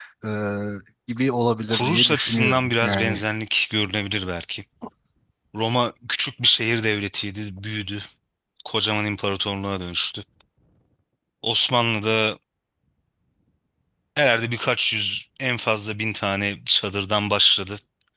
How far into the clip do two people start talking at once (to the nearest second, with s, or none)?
2 s